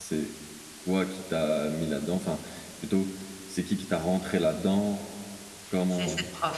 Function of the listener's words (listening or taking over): taking over